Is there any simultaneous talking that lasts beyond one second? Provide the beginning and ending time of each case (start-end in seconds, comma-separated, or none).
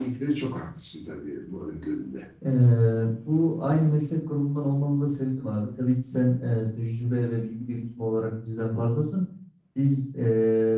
none